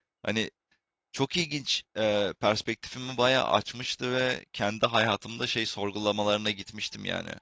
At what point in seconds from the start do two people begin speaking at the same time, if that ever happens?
none

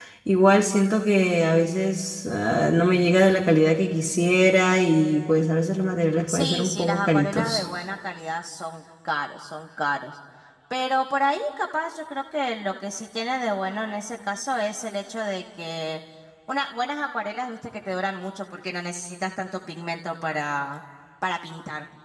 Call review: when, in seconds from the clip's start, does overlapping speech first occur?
6.3 s

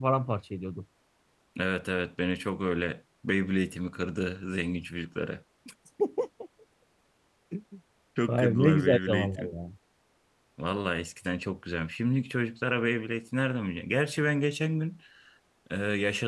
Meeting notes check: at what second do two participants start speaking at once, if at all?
8.3 s

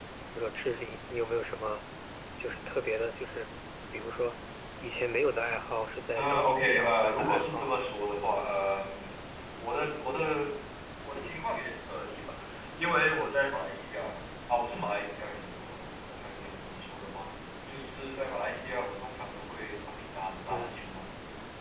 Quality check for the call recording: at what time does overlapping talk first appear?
6.2 s

